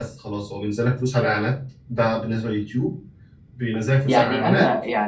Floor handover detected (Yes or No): Yes